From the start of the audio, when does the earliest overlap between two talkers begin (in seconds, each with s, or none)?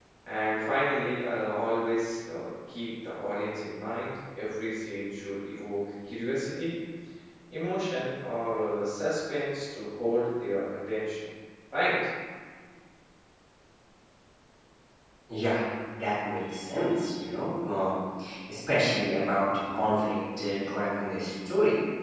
none